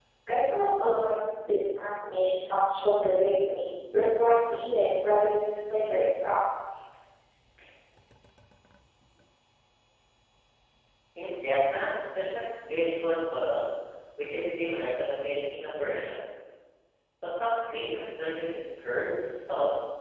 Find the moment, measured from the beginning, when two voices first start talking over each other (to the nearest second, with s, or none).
none